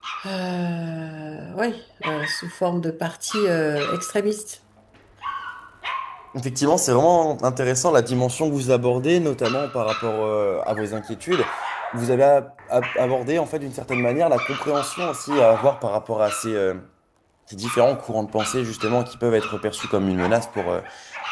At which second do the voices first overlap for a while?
none

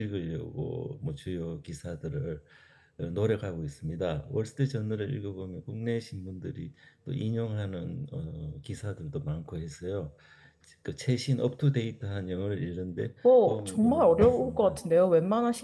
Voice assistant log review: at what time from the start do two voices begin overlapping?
13 s

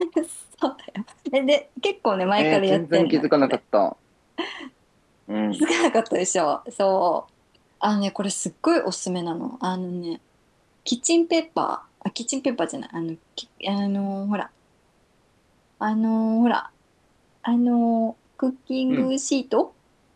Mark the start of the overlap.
2 s

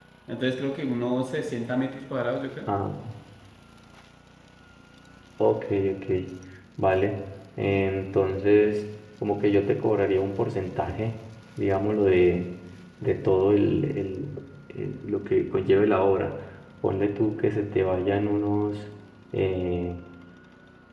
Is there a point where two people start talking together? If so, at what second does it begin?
none

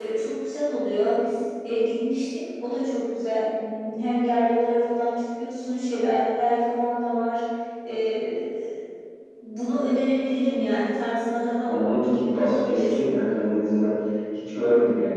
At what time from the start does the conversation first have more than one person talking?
12 s

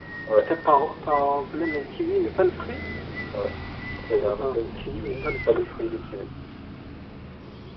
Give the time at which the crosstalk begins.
4 s

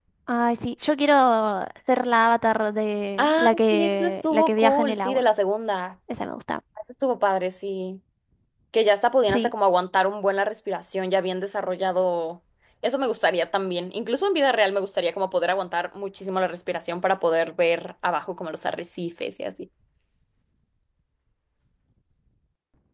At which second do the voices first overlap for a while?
3 s

